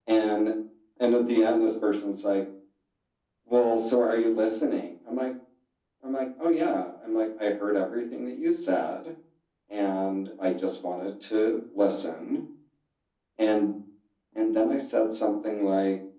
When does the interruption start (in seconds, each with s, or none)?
none